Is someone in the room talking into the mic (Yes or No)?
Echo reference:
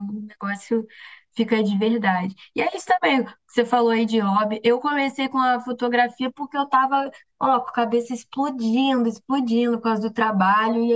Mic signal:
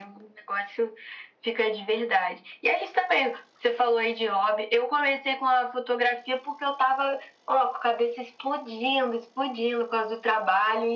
No